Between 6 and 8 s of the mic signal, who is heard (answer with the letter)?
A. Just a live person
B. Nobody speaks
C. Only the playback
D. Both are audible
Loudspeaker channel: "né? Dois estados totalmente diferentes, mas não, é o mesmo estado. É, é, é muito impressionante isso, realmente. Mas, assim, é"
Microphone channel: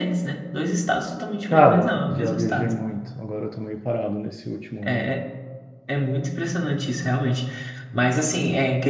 C